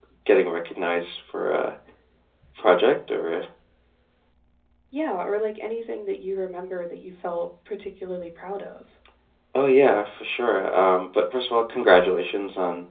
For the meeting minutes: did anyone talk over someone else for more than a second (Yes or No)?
No